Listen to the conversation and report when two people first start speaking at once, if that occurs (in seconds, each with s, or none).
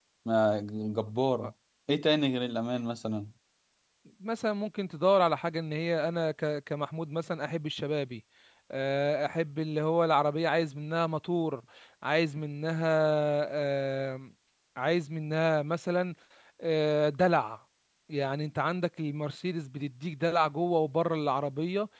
none